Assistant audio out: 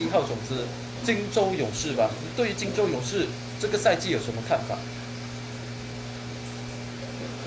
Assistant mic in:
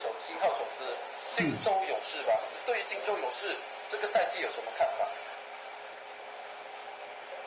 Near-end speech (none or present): present